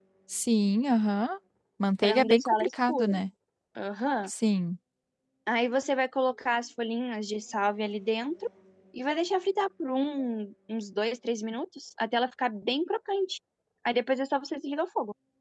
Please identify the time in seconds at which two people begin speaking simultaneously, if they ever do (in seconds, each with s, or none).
2.0 s